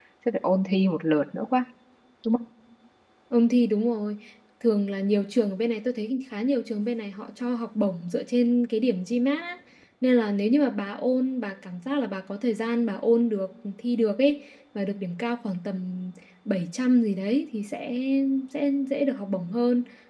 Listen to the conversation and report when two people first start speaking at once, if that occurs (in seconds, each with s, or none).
none